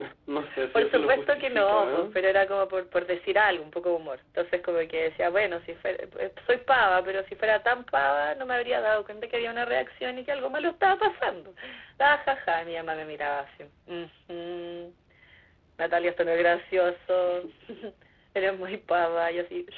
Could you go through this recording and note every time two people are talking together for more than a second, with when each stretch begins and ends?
0.8-2.1

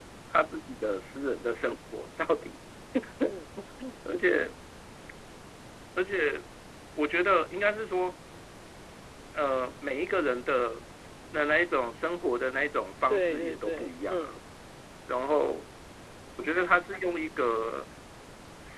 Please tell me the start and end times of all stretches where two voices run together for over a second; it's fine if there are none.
13.1-14.3

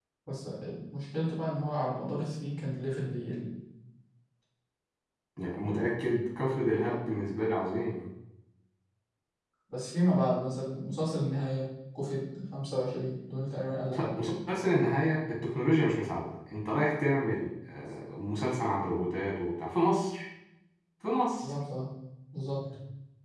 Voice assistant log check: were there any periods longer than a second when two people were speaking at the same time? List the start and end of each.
none

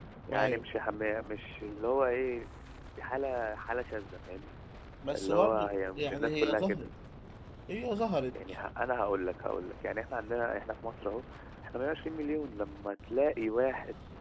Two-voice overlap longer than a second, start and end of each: 5.2-6.9

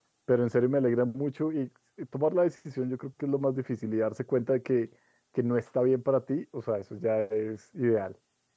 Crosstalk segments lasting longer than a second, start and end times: none

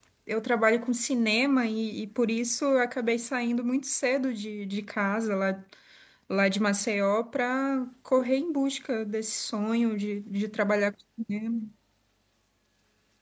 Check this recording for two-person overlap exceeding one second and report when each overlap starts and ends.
none

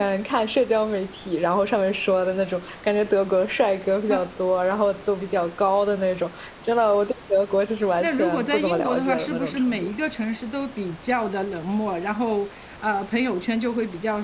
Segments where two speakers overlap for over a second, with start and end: 8.0-9.9

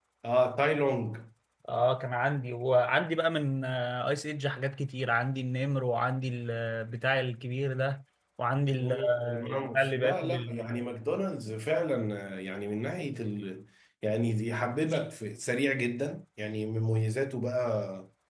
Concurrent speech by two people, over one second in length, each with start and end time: 8.8-10.7

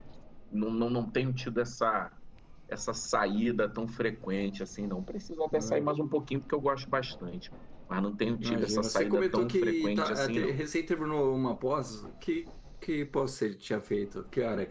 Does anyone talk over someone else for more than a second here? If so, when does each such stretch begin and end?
8.4-10.6

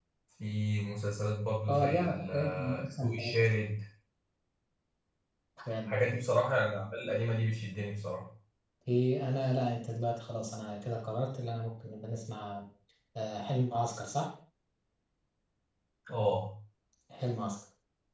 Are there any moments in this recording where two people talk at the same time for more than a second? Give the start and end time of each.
1.7-3.5

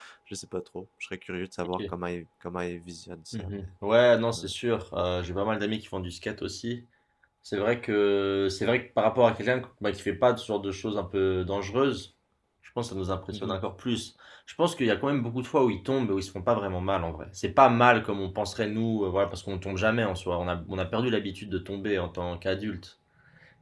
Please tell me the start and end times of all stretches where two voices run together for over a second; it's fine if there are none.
none

